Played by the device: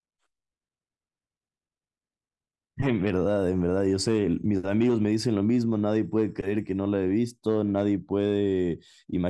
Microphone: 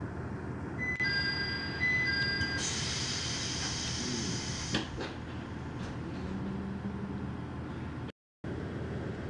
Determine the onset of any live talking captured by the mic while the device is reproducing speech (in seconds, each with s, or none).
none